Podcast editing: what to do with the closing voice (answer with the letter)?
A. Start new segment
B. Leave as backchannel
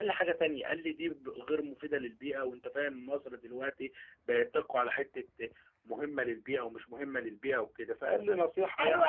A